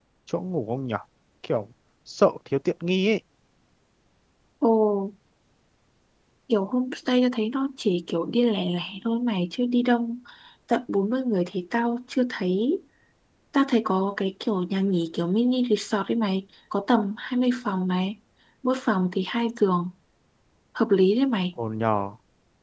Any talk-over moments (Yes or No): No